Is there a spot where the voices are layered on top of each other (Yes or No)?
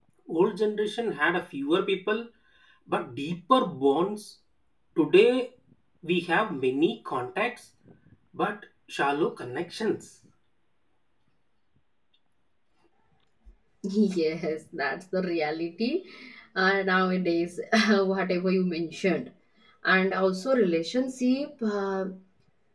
No